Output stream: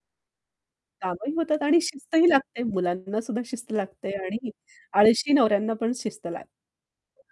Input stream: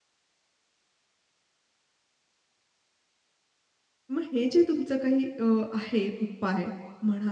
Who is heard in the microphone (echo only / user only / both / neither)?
user only